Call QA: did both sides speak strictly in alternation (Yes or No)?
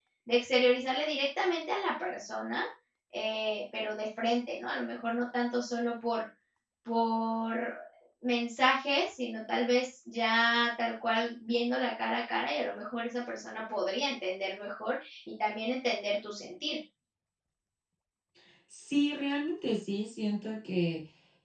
Yes